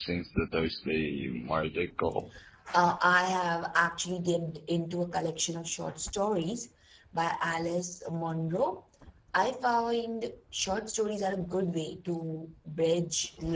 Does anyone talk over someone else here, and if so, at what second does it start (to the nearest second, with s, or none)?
none